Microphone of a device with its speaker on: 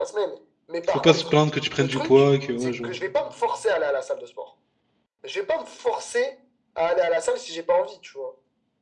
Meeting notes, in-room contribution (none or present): present